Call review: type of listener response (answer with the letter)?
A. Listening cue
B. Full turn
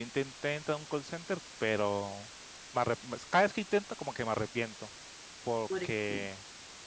A